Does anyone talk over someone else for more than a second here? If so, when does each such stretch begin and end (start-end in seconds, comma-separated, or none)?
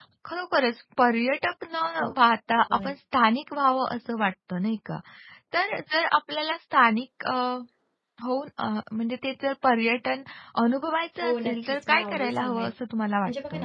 11.2-12.7